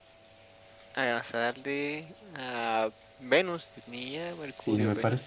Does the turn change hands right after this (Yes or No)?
Yes